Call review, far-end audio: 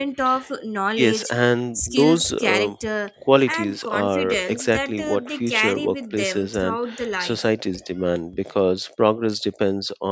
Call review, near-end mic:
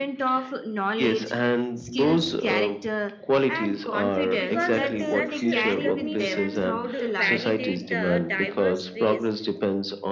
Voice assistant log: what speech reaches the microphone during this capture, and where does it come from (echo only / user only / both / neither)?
both